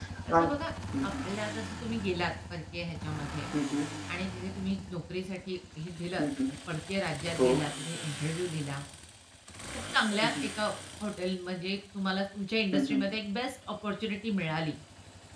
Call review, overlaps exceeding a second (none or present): none